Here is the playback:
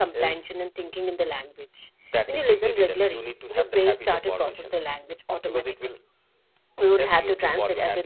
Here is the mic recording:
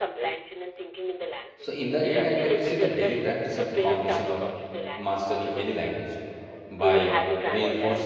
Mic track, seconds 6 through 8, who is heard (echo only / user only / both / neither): both